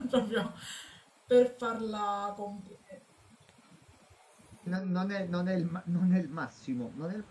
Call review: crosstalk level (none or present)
none